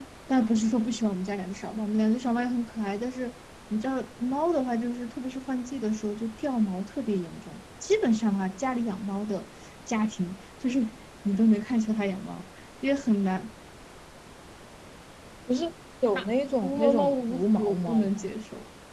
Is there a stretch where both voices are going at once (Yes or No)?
Yes